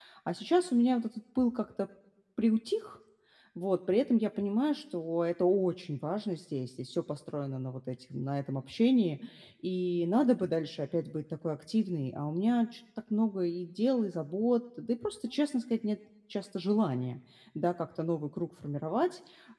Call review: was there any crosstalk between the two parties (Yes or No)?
No